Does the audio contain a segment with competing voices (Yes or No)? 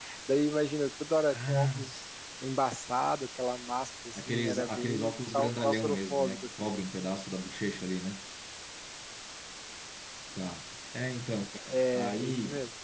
Yes